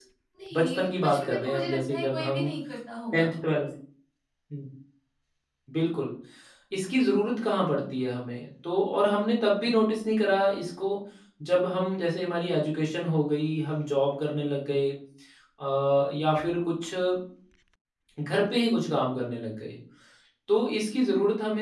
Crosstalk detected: Yes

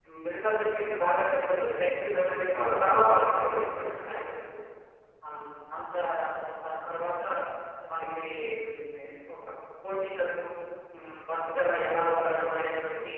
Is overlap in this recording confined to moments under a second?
No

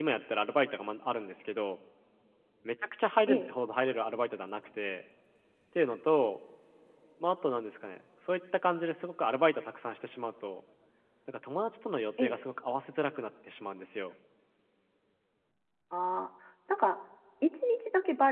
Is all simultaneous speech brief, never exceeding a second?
Yes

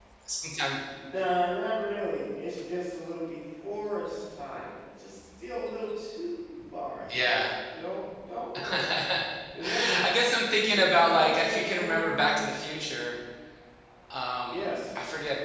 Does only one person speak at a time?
No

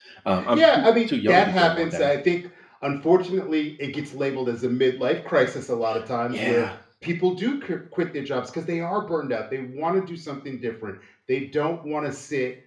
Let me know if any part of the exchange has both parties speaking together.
Yes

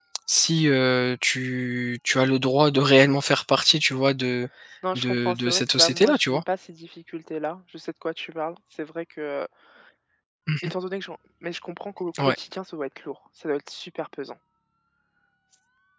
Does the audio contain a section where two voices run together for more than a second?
Yes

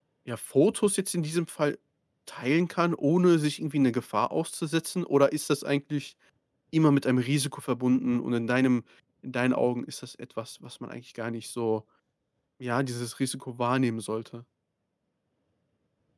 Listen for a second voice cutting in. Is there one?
No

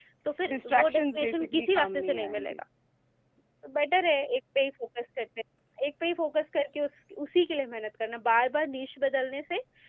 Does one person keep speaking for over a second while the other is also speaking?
Yes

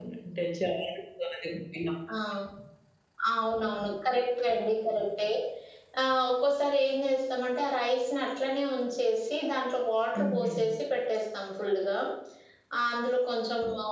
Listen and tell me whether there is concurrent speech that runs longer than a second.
No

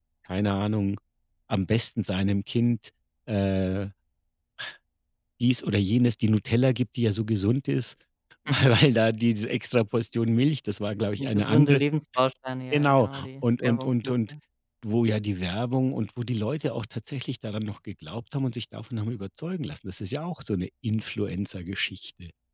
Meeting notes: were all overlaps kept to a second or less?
No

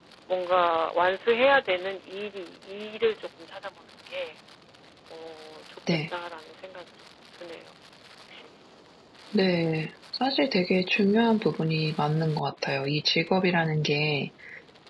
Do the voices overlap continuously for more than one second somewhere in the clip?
No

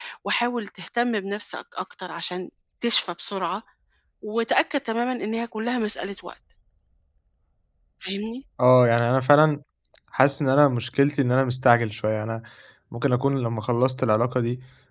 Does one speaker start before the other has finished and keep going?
No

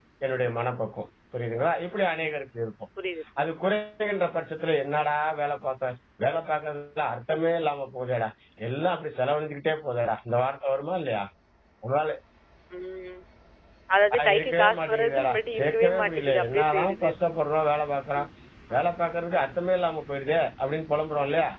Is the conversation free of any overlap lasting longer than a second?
No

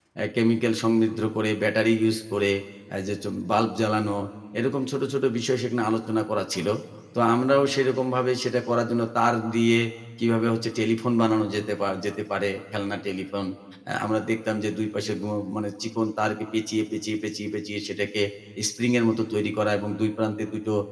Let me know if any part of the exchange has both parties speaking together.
No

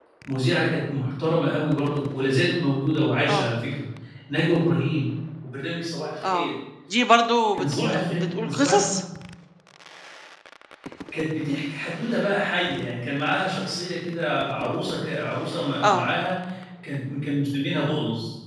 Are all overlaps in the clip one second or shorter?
No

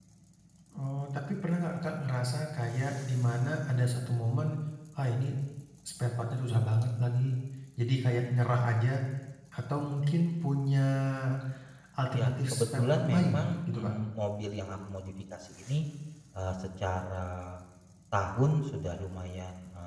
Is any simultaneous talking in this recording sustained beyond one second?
Yes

